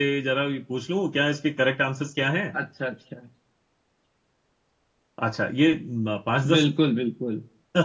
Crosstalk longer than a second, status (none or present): none